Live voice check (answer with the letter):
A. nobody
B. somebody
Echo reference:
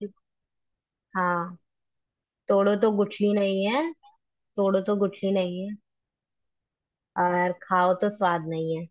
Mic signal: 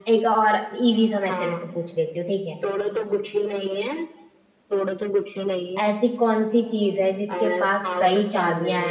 B